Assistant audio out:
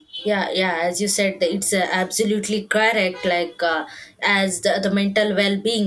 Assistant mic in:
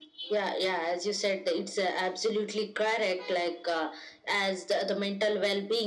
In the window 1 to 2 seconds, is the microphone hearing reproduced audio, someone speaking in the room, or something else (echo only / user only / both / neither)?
echo only